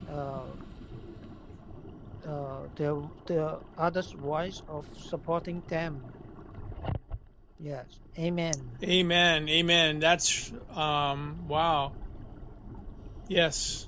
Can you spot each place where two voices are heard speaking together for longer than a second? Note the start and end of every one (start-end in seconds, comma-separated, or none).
none